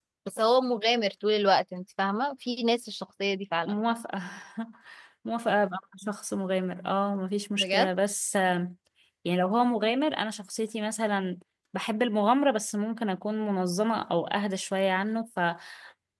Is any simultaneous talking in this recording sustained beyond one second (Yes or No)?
No